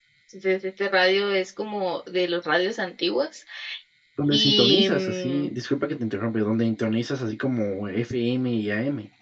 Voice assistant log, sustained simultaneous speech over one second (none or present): present